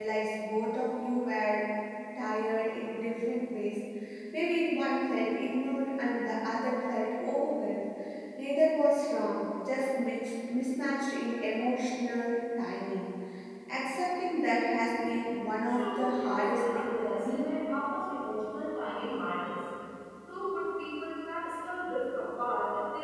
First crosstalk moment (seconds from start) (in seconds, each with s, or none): 15.7 s